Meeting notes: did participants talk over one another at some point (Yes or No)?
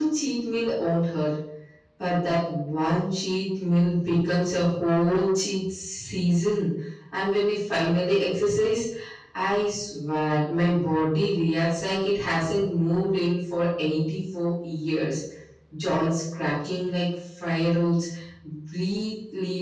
No